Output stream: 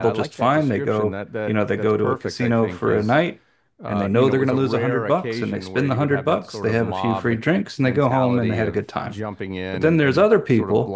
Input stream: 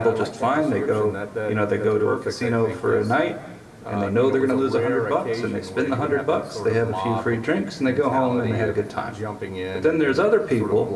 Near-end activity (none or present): none